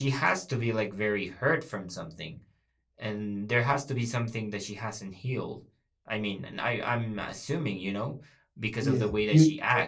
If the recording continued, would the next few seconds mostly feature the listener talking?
Yes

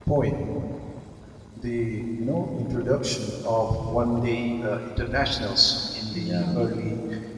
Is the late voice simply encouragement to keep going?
Yes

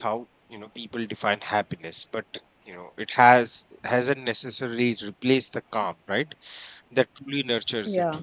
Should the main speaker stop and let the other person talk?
No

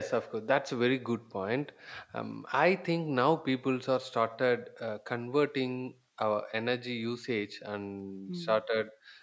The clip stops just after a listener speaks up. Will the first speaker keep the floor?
Yes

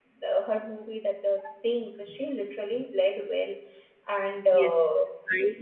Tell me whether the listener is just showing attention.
No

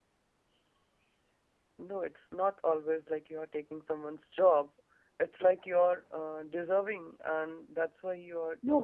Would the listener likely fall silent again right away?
No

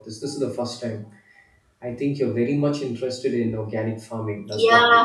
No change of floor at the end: No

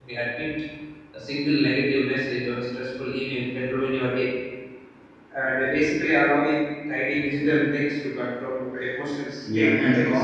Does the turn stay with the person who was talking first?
No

